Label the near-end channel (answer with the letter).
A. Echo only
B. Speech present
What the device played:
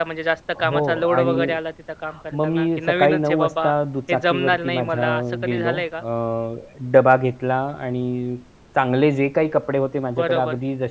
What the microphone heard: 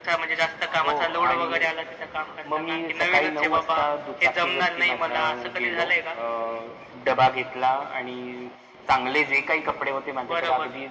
A